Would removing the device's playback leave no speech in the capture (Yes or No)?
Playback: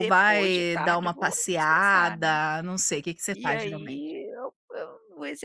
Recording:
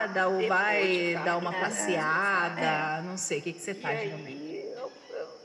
No